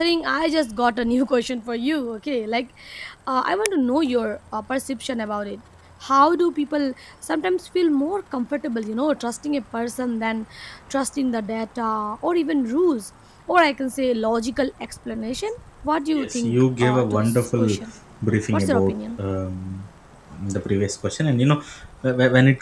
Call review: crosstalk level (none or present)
present